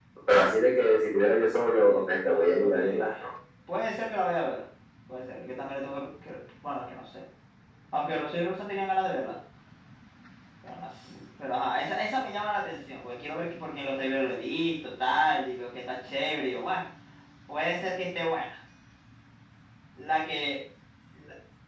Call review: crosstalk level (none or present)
present